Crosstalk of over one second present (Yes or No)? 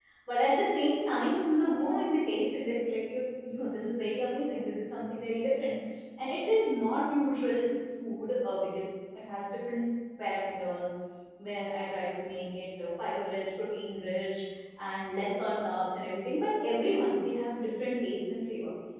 No